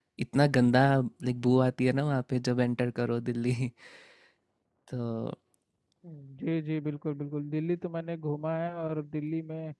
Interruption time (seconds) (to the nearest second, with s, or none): none